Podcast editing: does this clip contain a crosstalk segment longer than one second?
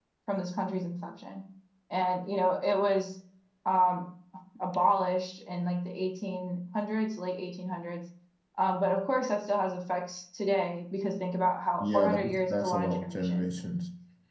Yes, from 11.8 s

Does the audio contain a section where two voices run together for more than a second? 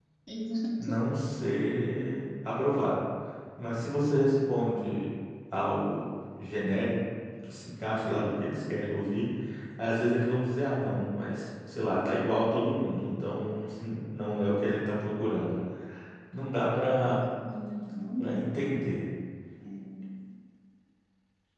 No

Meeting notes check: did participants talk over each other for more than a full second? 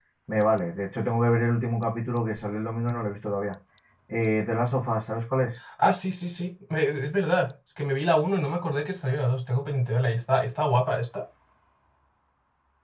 No

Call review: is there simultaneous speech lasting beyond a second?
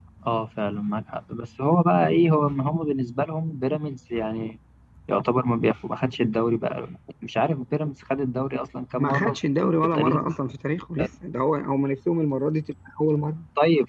Yes, from 9.0 s

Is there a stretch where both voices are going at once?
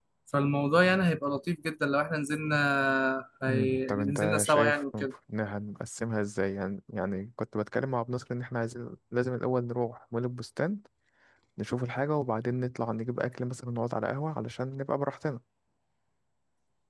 Yes, from 3.5 s

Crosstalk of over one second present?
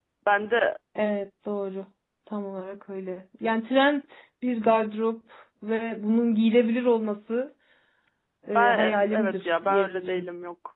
Yes, from 8.6 s

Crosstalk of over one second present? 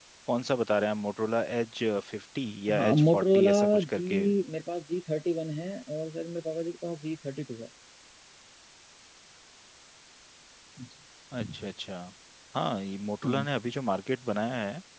Yes, from 2.7 s

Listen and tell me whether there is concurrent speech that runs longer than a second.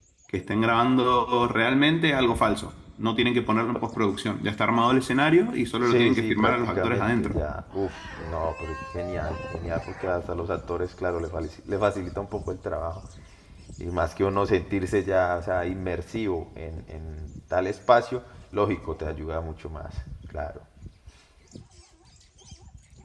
Yes, from 5.8 s

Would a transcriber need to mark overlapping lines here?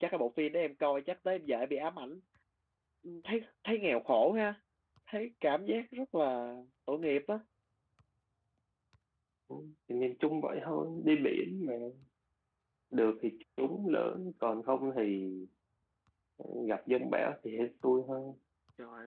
No

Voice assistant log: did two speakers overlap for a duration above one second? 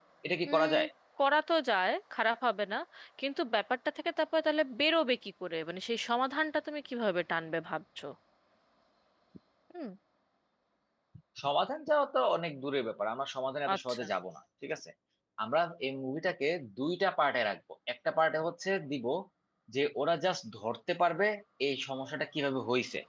No

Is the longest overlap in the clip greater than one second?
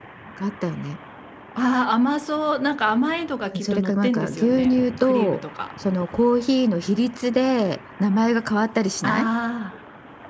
Yes, from 3.5 s

